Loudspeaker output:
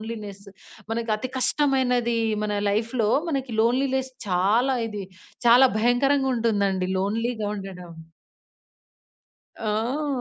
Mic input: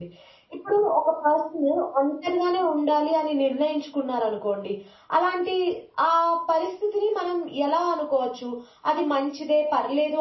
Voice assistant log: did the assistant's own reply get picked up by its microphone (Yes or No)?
No